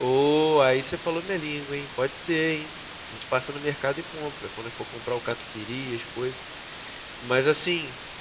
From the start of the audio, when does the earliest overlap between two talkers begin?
none

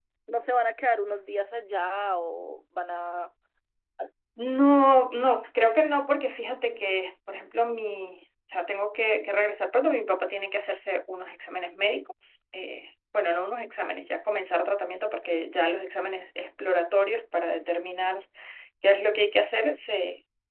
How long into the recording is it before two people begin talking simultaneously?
none

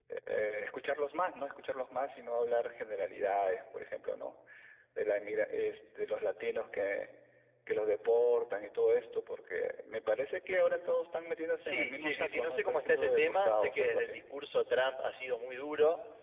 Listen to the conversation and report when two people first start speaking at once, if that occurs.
12 s

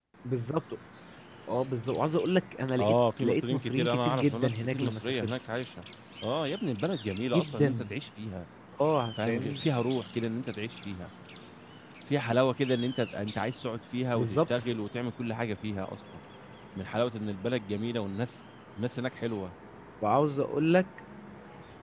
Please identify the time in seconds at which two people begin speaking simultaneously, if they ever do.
3 s

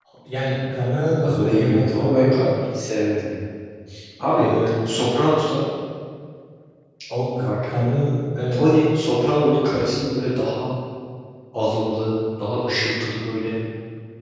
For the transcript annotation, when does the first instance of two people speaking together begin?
1 s

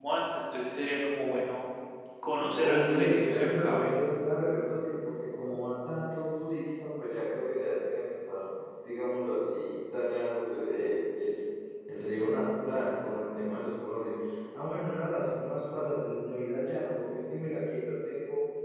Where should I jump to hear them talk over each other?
3 s

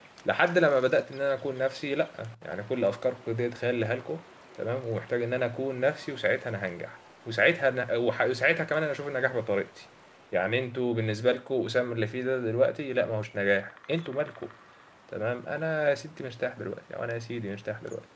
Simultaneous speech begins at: none

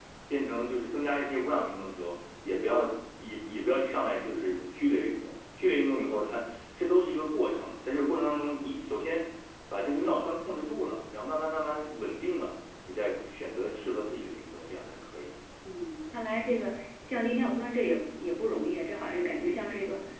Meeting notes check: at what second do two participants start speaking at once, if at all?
none

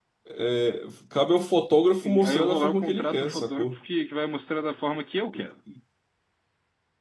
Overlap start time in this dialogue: 2 s

